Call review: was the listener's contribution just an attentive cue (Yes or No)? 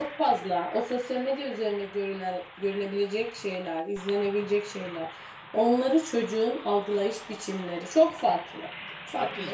No